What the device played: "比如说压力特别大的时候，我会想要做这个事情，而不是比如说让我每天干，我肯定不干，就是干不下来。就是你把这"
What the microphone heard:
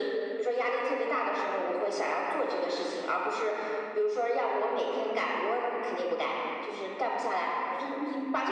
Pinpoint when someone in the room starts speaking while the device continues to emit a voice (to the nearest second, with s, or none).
none